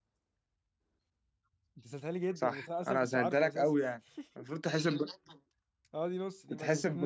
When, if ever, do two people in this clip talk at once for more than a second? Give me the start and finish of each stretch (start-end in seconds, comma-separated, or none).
2.4-3.7